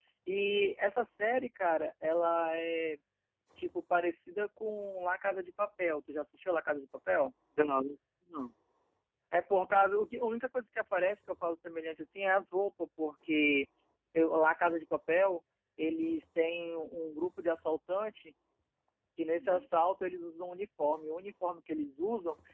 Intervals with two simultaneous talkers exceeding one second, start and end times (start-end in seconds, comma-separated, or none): none